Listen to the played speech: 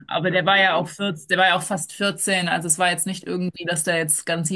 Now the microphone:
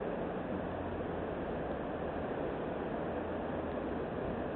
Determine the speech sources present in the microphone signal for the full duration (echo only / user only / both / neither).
neither